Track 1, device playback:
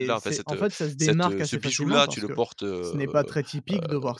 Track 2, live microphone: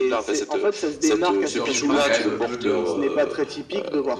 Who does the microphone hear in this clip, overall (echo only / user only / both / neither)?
both